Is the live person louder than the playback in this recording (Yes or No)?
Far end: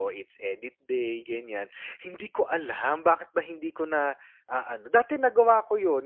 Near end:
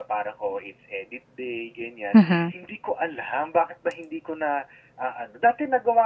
Yes